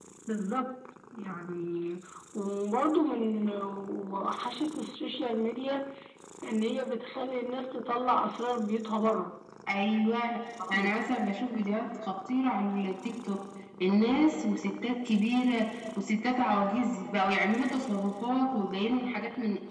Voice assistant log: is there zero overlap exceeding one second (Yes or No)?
Yes